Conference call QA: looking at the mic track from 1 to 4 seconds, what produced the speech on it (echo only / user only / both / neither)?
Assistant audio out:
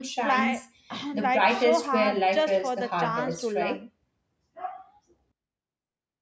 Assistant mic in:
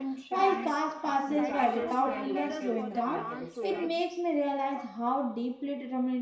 both